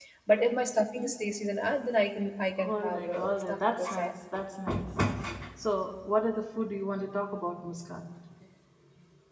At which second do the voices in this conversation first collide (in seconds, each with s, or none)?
2.6 s